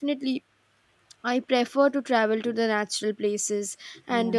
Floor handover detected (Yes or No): No